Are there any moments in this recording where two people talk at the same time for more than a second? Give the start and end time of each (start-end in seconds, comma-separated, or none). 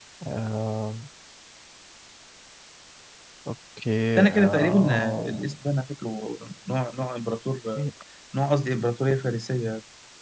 4.2-5.5